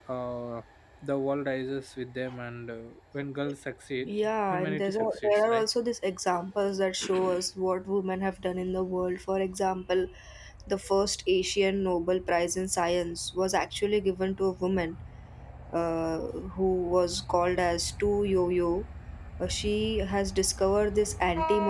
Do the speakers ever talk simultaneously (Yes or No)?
Yes